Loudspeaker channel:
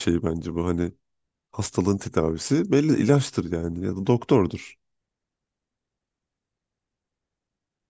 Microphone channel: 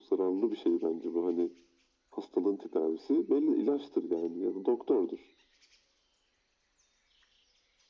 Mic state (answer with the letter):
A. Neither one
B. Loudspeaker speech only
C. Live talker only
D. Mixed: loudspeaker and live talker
B